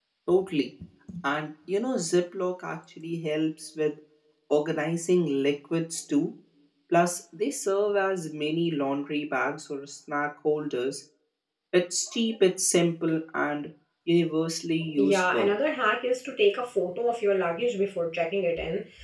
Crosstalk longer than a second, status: none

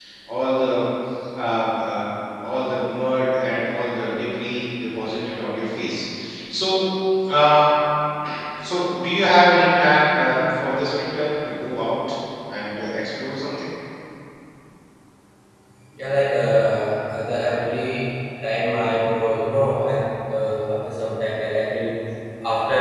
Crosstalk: none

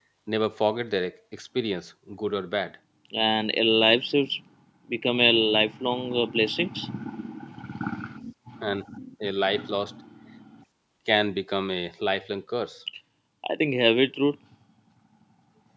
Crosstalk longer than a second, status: none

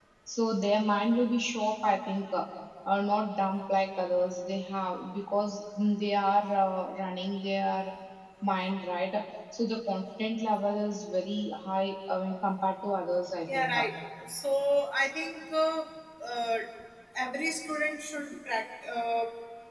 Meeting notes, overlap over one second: none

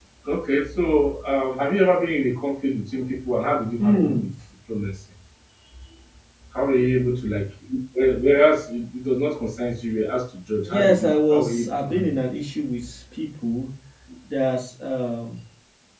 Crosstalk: present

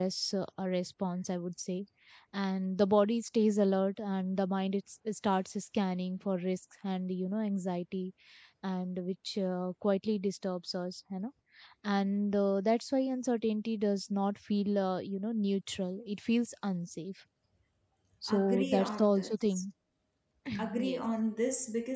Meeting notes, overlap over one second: present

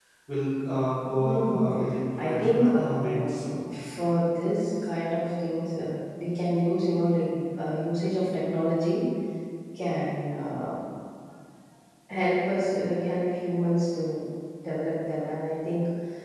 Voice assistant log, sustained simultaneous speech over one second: present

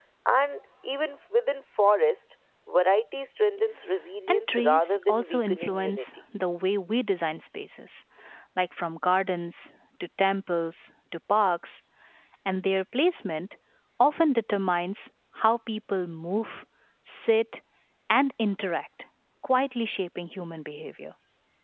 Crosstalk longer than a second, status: present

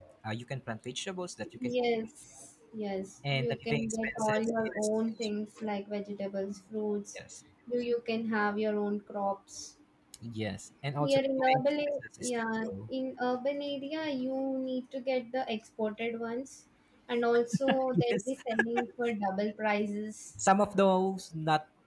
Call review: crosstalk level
present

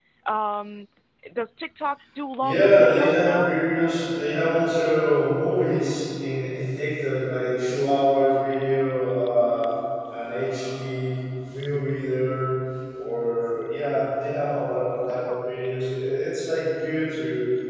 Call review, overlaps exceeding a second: present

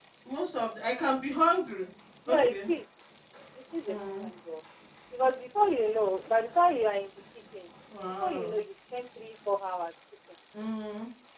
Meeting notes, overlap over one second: none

